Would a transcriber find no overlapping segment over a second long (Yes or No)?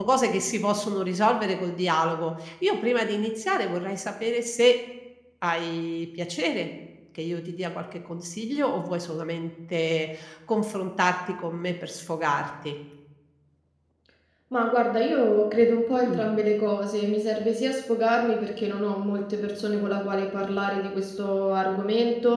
Yes